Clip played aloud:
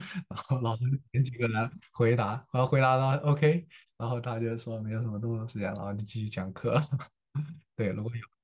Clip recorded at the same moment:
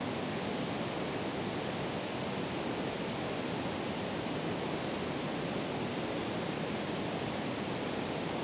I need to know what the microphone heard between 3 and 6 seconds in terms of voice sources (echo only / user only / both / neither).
neither